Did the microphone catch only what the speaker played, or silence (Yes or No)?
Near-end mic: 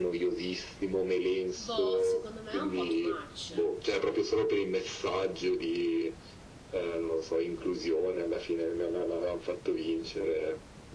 No